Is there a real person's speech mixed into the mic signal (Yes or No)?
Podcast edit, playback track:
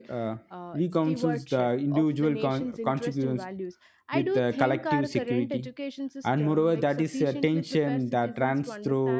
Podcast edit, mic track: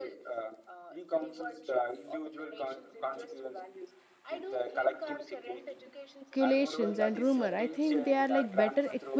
Yes